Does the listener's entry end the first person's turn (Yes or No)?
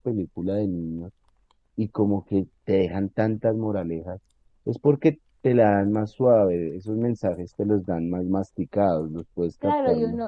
Yes